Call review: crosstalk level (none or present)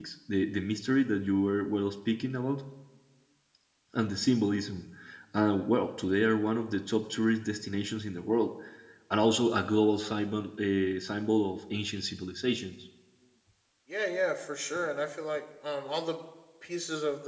none